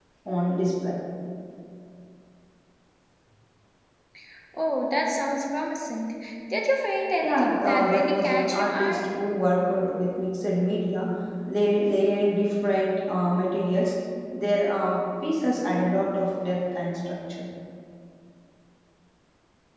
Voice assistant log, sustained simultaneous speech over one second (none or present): present